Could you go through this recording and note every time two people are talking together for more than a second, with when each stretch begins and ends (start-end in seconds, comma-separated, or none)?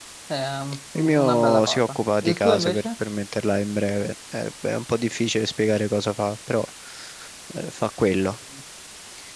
0.9-2.9